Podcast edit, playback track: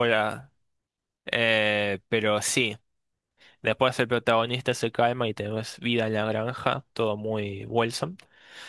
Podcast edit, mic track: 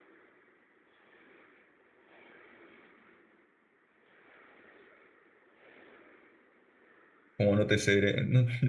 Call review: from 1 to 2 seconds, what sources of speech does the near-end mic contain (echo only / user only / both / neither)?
neither